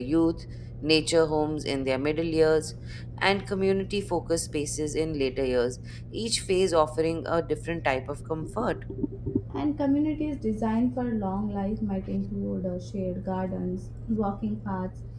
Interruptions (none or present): none